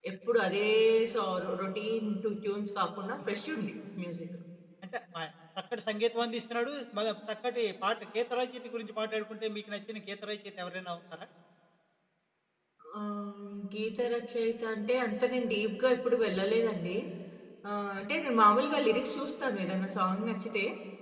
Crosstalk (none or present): none